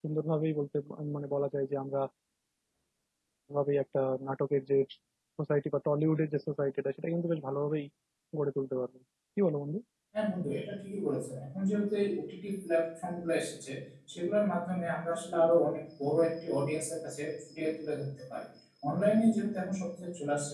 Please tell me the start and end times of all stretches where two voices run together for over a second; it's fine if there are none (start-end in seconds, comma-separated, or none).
none